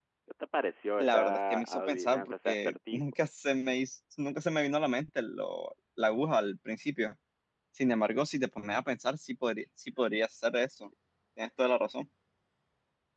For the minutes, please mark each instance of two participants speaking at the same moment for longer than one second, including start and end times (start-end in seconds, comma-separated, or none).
1.0-3.0